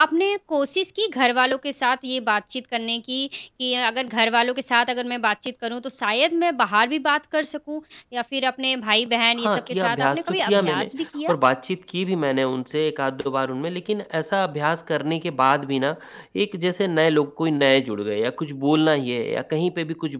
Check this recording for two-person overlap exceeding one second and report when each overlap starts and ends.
9.4-10.8

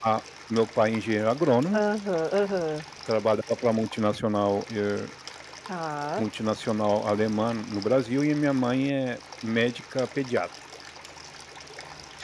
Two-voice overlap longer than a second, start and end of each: none

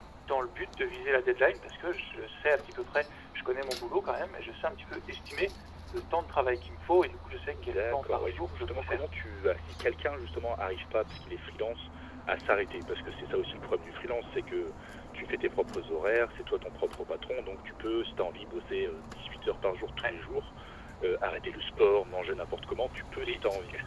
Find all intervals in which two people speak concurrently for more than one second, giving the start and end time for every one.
7.6-9.0

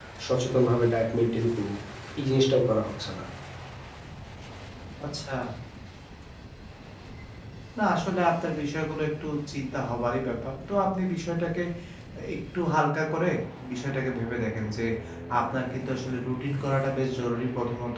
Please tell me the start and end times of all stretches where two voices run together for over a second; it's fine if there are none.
none

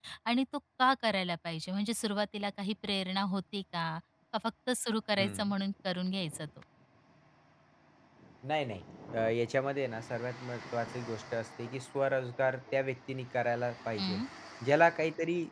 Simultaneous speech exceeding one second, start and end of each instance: none

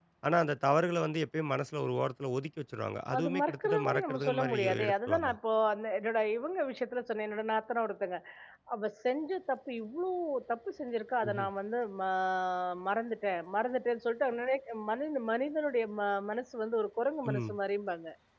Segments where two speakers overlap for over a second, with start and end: 3.2-5.4

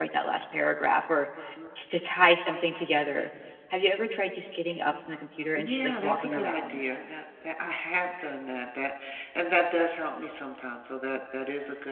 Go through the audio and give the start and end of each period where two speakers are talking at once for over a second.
5.5-6.8

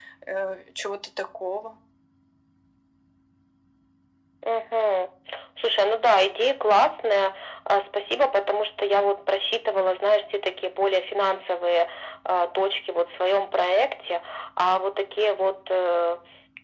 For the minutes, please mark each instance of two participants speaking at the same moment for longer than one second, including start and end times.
none

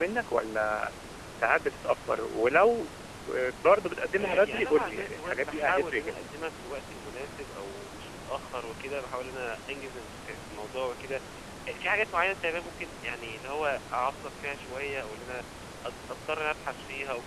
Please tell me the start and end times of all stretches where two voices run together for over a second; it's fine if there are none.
4.2-6.1

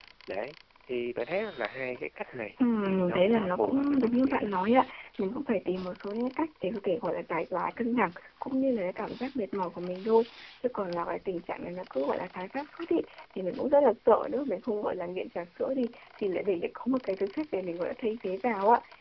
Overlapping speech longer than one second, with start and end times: 2.8-4.5

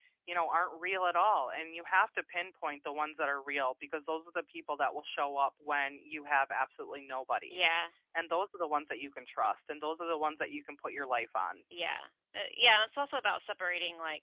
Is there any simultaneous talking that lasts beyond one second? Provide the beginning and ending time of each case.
none

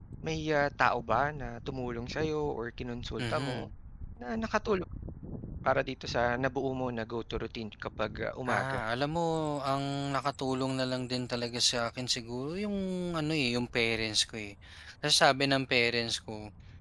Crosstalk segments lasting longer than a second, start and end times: none

